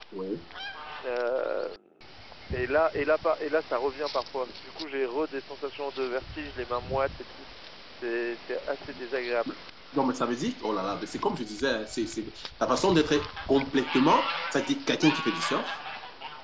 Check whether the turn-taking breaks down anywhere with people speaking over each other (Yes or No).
No